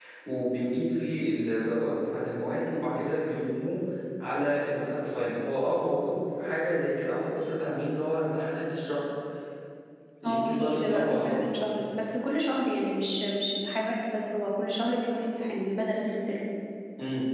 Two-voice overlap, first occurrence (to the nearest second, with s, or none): 10 s